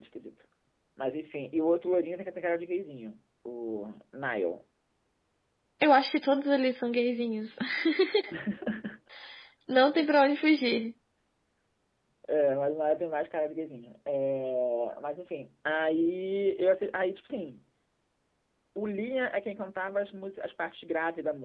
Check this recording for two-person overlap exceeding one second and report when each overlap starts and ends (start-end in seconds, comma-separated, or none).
none